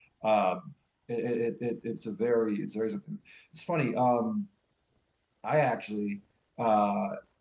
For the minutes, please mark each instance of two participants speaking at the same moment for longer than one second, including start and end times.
none

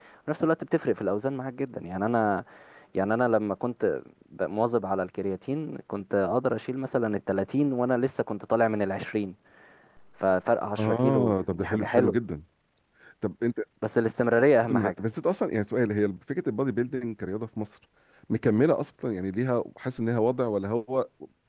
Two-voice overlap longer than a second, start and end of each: 10.8-12.2

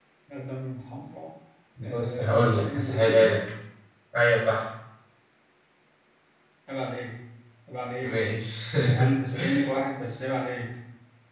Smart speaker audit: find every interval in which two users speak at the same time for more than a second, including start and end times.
1.8-3.3

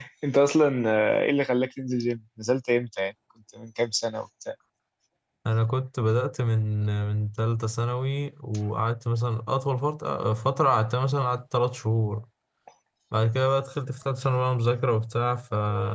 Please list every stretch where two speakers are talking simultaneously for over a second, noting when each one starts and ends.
none

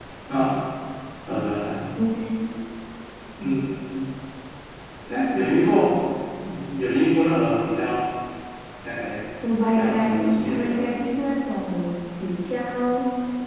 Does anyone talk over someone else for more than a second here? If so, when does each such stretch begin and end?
9.7-11.0

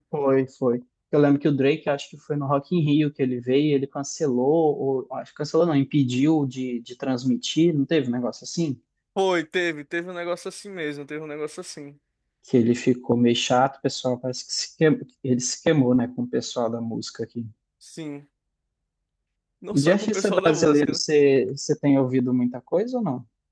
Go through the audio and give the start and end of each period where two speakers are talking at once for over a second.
19.7-21.0

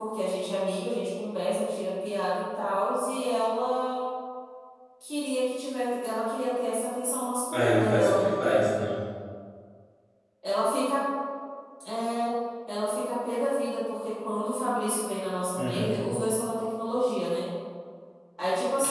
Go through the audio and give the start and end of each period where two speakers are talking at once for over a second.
7.5-8.7

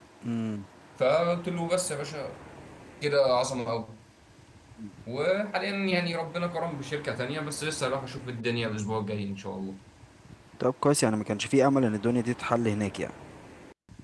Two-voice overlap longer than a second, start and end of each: none

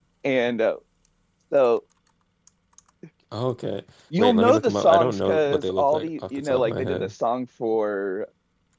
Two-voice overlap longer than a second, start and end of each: 4.2-7.1

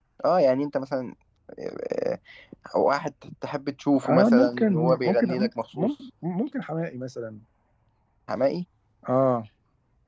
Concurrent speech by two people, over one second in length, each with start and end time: 4.0-5.3

